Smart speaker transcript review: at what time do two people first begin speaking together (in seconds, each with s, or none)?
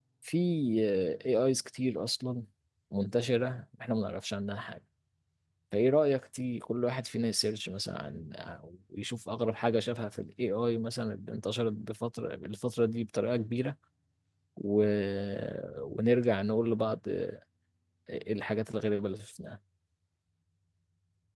none